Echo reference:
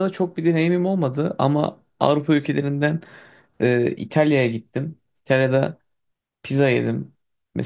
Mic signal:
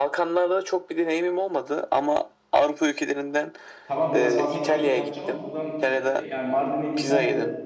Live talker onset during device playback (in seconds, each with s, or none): 3.8 s